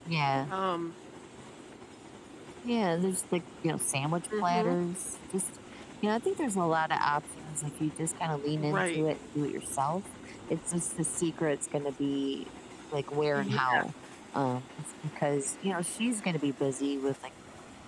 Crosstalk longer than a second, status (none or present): none